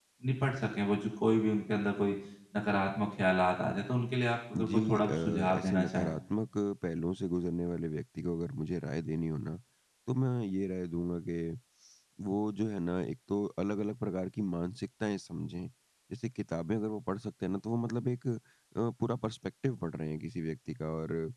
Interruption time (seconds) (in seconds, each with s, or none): 4.5 s